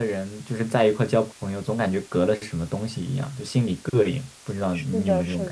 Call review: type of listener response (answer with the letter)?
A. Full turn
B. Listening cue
A